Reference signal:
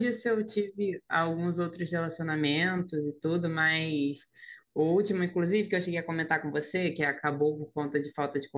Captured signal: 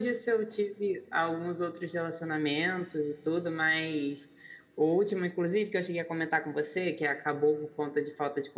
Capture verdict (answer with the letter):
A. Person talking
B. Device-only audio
B